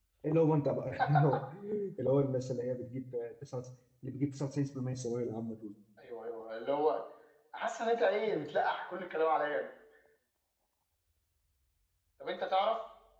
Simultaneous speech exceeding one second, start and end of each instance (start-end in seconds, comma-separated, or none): none